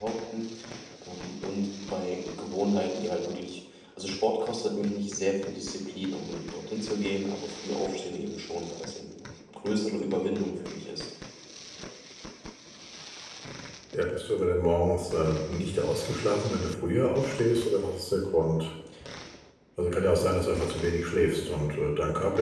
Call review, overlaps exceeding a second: none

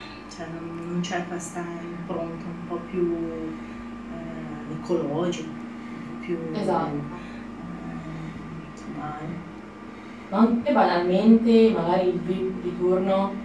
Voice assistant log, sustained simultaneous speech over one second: none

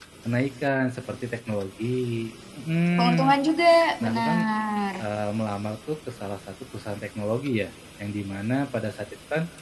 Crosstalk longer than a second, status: none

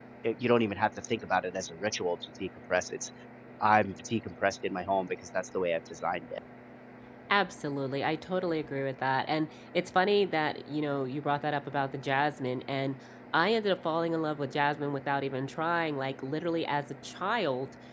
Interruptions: none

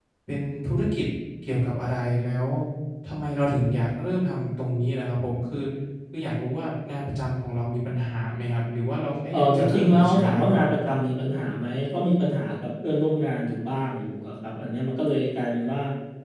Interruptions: present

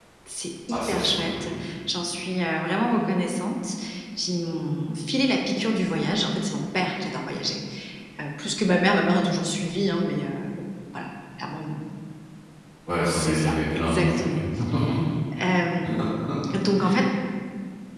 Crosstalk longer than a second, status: present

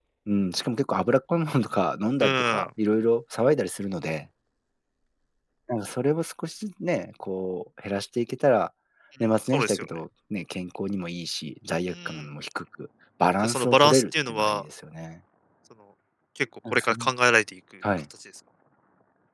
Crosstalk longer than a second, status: present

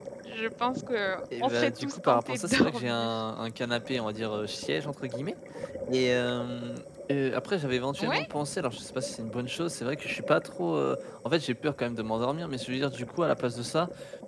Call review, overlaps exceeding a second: present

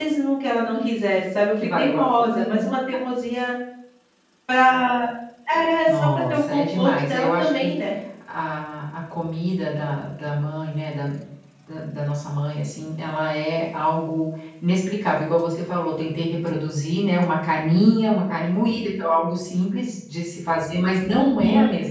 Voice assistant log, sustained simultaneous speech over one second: present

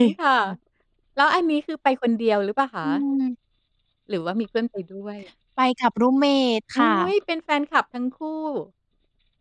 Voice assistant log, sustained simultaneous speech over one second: none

